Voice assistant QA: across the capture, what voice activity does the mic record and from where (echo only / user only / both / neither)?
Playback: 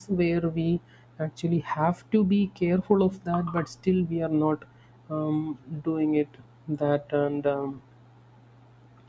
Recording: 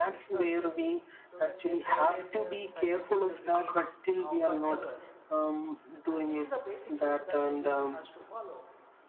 both